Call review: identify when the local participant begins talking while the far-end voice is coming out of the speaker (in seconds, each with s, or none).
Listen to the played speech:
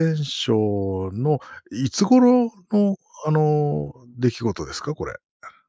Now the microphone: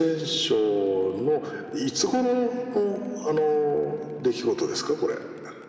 none